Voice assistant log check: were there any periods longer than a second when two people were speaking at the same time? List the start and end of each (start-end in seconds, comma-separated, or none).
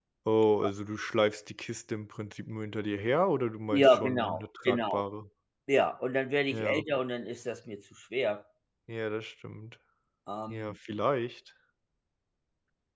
3.7-5.0